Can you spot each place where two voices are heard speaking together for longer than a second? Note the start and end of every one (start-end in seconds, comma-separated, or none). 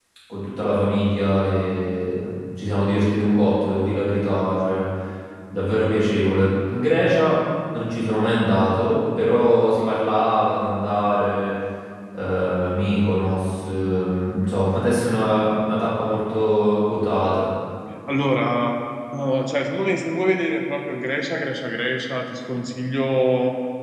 none